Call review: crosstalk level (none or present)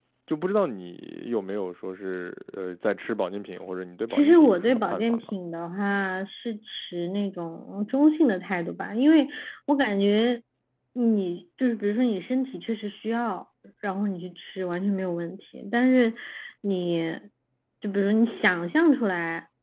present